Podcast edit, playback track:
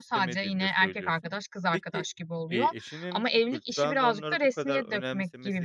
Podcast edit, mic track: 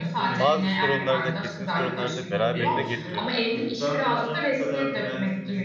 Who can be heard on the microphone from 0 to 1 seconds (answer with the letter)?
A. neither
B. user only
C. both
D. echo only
C